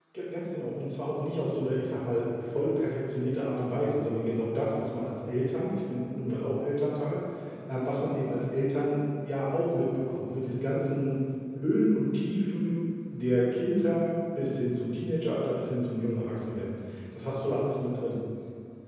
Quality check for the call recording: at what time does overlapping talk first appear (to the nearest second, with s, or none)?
none